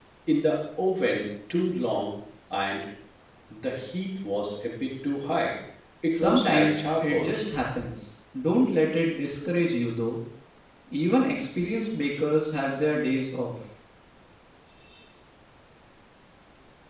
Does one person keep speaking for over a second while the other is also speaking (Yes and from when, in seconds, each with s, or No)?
Yes, from 6.1 s